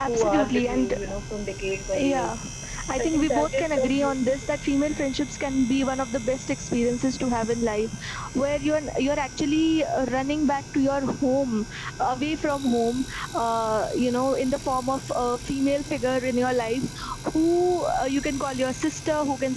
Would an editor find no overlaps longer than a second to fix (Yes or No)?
No